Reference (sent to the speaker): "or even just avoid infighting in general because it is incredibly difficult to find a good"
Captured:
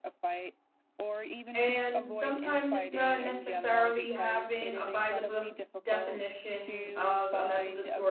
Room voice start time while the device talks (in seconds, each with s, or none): 1.5 s